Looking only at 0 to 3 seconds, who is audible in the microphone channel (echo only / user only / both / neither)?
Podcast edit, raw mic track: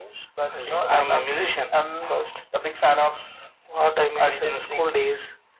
echo only